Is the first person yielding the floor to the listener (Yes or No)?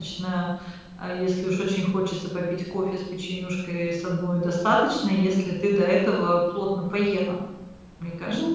Yes